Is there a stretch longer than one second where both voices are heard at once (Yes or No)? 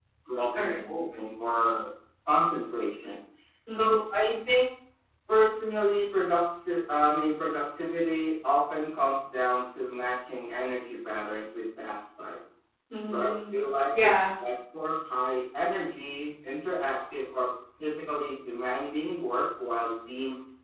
No